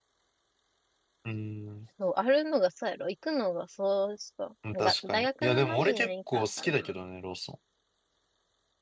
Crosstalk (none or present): present